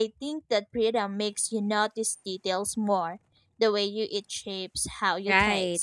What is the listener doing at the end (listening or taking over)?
taking over